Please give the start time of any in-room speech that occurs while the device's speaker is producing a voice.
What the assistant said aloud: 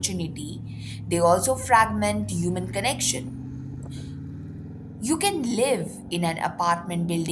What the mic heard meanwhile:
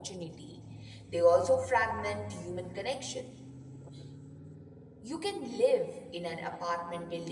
none

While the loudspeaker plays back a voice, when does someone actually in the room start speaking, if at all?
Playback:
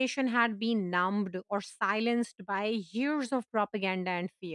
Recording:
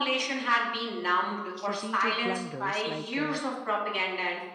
1.5 s

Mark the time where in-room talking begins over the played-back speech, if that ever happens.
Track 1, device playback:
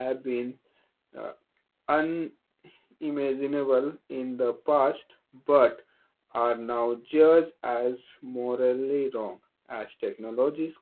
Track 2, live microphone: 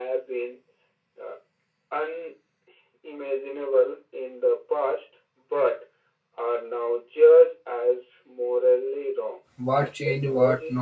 9.6 s

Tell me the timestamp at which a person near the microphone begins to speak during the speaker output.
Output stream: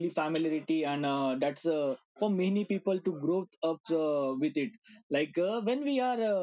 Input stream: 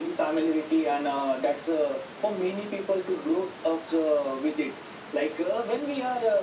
none

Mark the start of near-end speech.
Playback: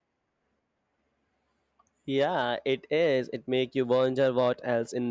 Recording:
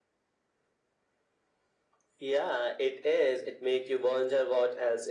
none

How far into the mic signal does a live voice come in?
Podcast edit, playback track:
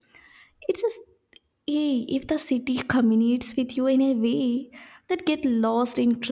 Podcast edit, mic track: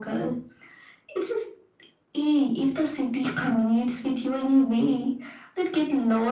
none

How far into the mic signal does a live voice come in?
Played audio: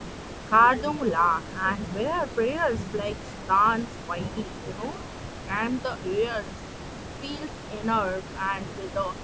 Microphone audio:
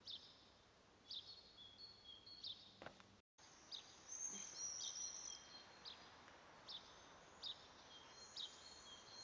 none

